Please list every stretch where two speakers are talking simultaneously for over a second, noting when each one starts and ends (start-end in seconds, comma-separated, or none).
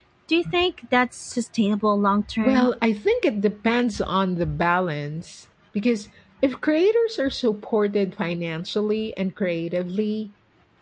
none